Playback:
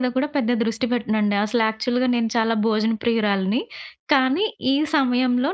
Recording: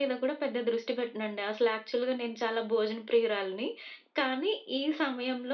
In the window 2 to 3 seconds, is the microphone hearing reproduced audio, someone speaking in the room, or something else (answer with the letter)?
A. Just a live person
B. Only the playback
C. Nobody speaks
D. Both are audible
B